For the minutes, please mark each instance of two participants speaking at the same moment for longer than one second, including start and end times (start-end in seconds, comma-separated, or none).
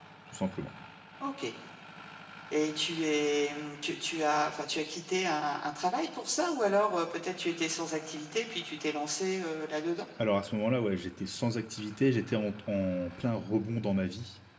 none